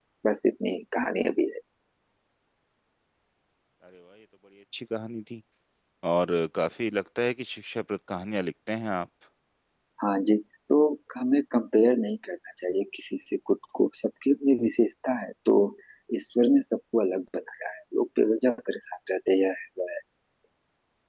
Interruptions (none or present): none